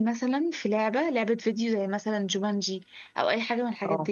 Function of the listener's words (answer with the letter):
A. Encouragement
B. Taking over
A